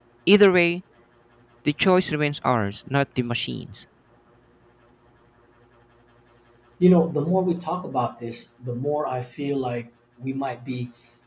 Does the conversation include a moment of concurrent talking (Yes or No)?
No